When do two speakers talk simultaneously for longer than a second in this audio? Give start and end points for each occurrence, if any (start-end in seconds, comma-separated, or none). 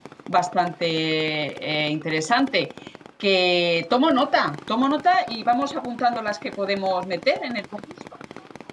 none